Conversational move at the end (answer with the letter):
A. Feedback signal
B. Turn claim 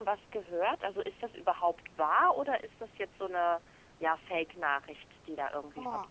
B